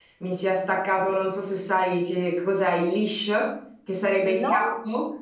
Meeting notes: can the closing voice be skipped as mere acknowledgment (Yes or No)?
Yes